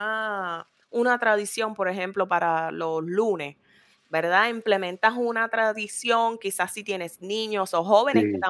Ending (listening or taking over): listening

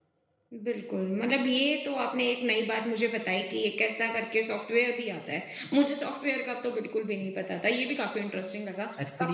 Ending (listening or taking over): taking over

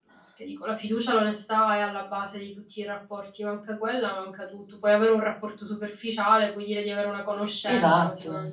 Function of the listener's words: taking over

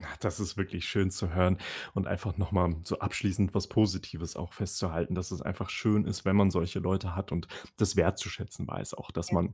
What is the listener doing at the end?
listening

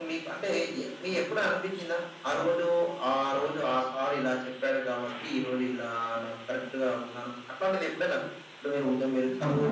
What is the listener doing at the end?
taking over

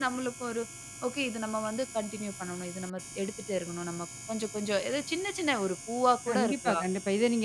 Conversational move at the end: taking over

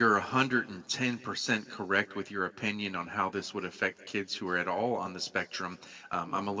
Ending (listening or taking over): listening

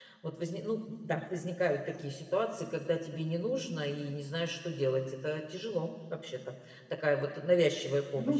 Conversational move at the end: taking over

